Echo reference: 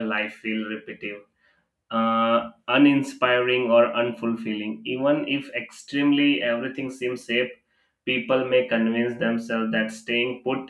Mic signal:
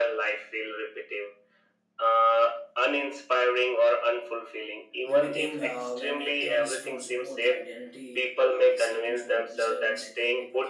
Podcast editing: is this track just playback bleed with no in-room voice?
No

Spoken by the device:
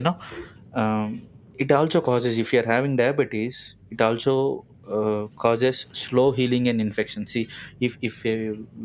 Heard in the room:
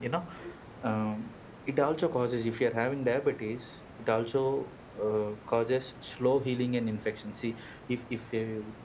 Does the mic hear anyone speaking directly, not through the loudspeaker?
No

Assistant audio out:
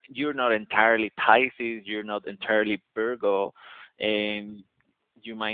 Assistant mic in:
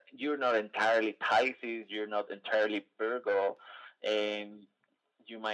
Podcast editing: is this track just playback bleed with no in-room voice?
Yes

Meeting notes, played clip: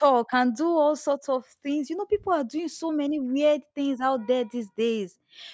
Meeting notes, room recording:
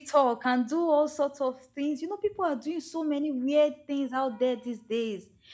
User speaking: No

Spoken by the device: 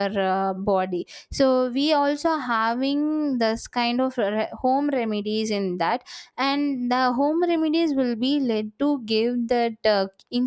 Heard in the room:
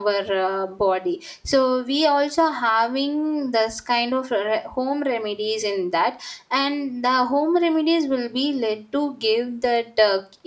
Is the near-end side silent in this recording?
Yes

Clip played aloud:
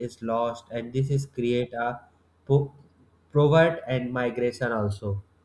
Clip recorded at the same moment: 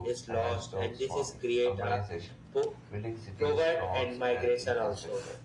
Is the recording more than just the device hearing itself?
Yes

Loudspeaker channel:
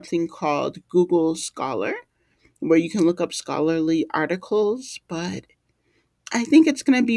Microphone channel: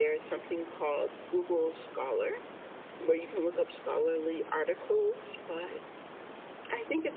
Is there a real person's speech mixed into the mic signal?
No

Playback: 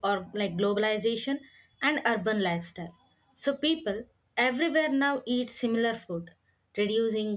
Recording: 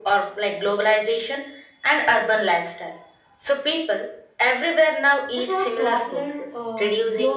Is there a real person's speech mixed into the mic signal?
Yes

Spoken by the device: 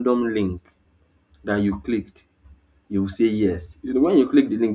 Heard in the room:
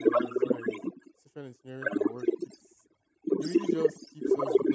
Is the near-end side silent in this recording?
No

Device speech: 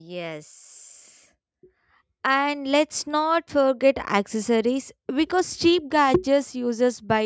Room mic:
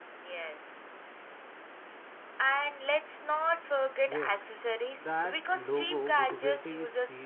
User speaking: Yes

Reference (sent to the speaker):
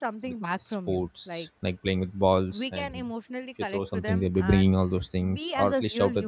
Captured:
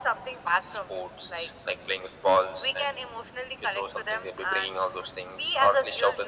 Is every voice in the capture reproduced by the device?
Yes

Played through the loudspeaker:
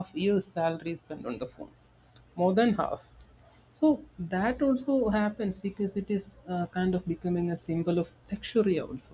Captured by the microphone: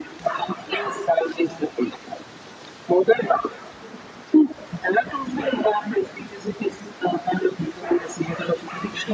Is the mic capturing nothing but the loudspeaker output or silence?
Yes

